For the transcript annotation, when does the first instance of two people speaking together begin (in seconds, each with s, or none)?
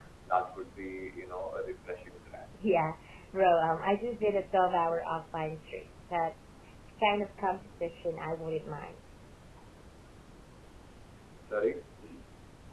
none